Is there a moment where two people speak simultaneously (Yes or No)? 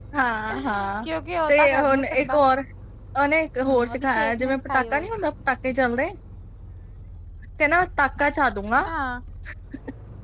Yes